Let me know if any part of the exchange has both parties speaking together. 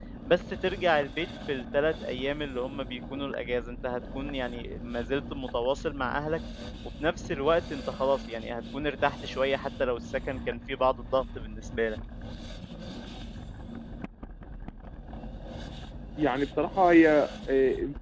No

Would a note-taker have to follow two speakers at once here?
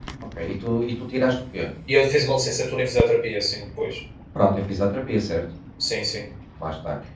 No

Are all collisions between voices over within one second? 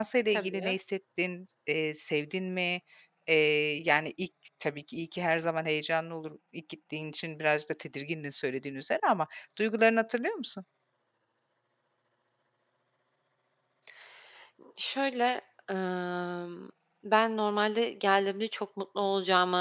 Yes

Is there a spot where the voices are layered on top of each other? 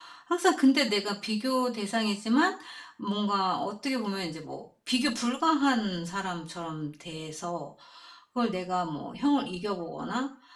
No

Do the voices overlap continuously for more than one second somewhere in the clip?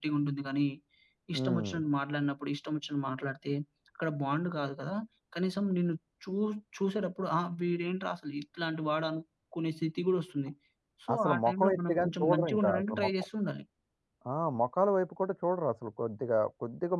Yes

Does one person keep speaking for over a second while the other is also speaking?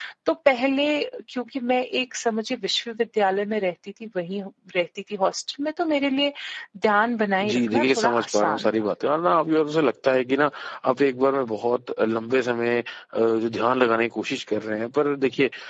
Yes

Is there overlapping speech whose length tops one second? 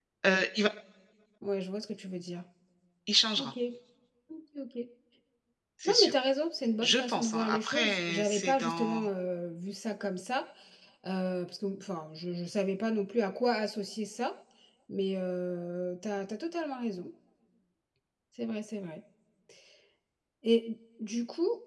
Yes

